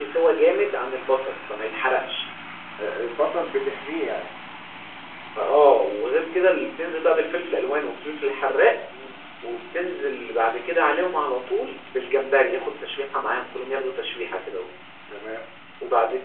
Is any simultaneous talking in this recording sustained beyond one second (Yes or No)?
No